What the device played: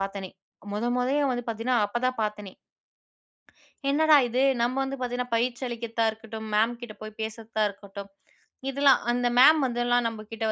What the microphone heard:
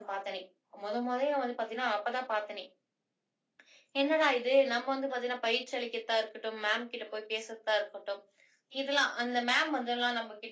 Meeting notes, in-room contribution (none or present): none